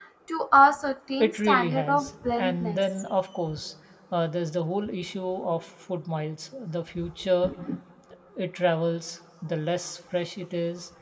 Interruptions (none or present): present